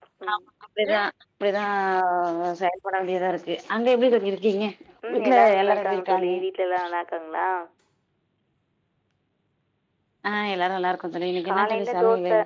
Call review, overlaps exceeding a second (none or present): present